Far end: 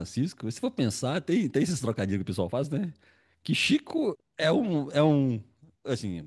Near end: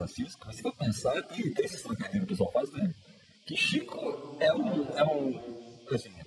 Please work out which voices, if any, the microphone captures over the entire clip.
both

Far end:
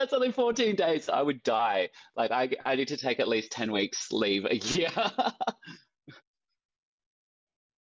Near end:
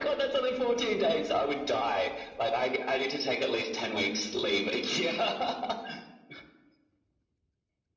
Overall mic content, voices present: echo only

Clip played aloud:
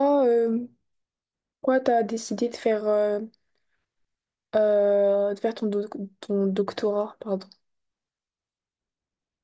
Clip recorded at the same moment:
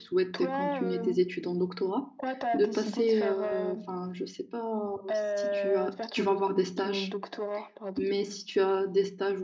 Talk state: both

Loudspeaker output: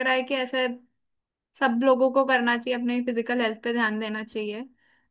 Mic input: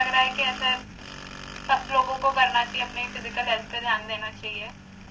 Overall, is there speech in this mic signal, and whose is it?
echo only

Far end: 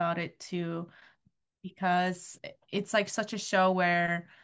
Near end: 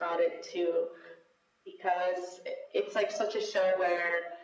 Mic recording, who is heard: echo only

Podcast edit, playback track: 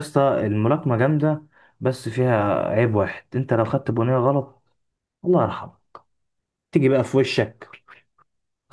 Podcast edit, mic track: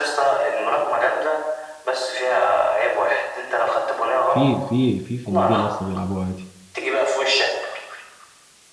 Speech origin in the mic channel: both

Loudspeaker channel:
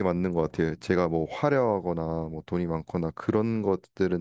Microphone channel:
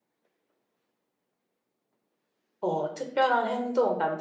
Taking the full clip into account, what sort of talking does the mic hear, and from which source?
user only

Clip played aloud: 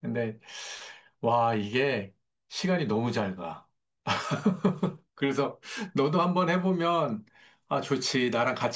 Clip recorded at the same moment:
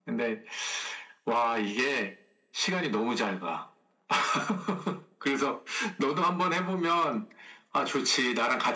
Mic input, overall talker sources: echo only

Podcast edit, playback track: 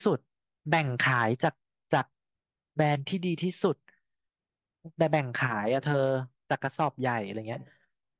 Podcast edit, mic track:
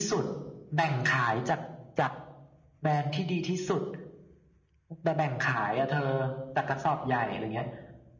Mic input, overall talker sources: echo only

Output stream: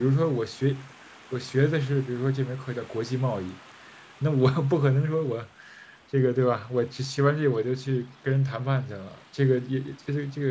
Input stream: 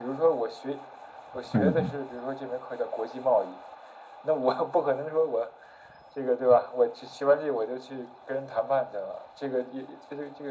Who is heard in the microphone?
both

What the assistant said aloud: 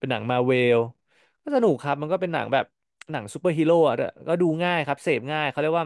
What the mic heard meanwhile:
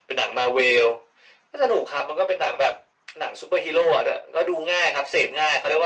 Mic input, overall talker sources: echo only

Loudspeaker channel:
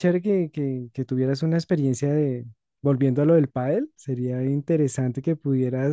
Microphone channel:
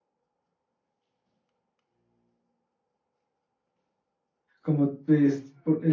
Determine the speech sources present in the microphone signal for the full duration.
user only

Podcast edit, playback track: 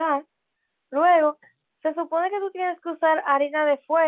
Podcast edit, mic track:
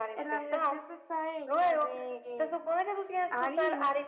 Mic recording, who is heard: both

